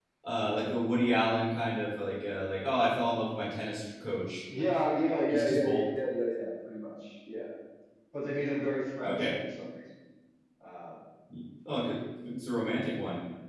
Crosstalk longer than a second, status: none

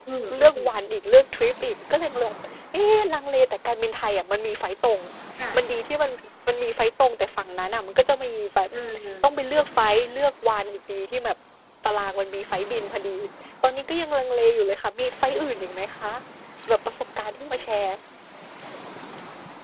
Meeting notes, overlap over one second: none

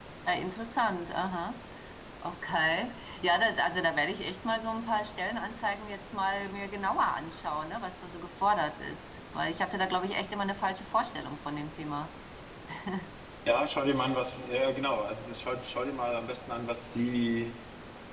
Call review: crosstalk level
none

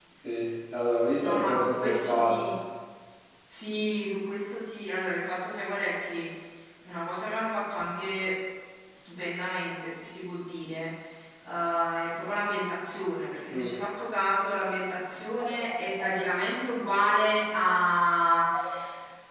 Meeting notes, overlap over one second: present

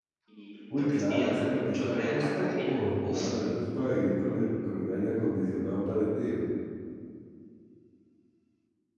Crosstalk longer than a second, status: present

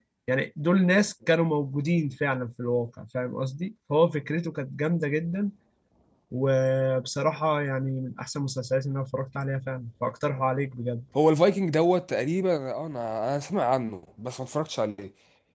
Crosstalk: none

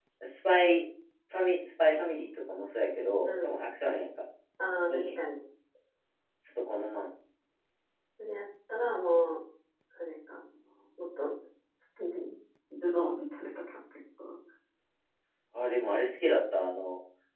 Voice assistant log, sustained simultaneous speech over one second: none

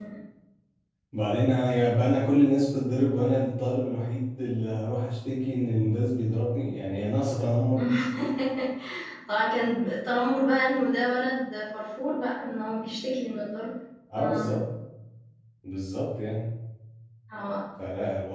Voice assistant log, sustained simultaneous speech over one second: none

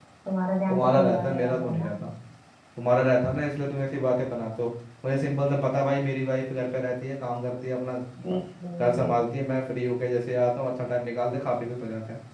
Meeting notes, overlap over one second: present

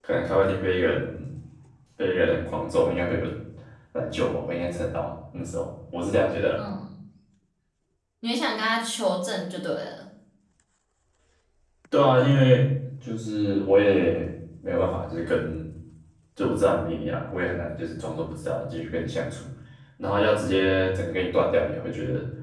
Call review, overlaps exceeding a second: none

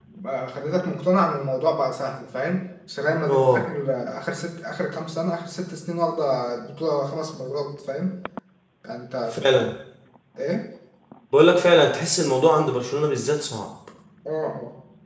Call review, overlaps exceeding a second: none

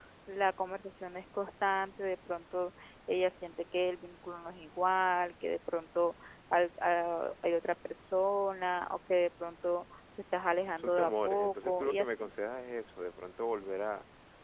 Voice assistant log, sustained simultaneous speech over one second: present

